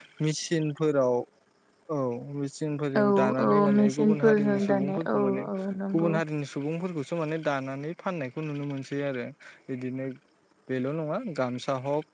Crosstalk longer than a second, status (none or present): present